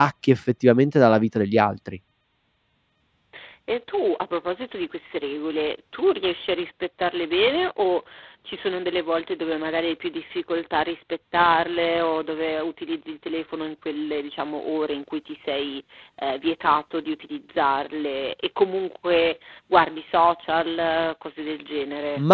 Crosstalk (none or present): none